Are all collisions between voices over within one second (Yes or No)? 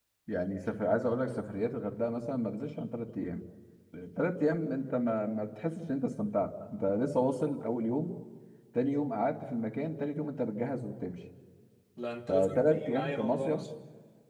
No